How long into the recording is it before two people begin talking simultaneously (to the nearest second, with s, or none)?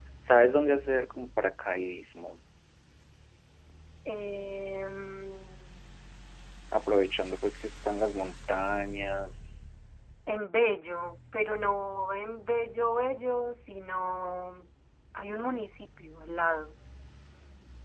none